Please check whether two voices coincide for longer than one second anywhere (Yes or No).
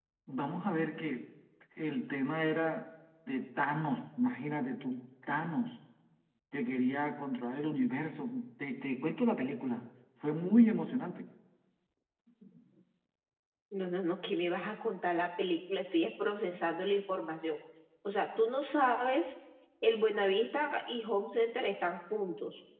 No